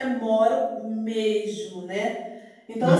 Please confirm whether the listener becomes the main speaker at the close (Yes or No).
No